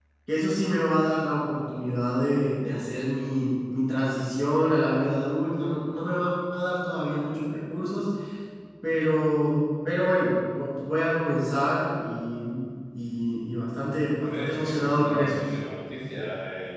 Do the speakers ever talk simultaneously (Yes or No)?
Yes